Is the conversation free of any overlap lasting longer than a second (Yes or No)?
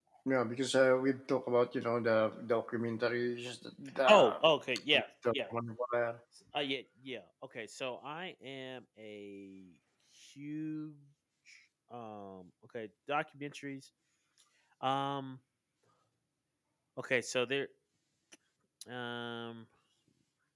Yes